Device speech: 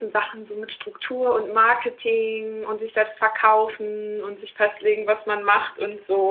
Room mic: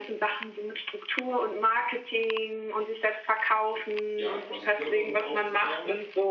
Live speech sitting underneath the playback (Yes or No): Yes